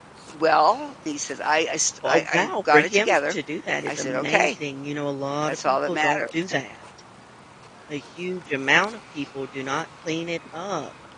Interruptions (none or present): present